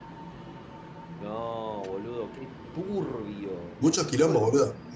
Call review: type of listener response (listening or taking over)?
taking over